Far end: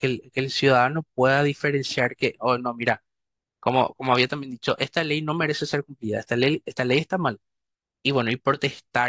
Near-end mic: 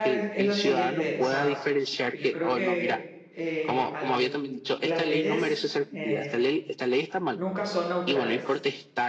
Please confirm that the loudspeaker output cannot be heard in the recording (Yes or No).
No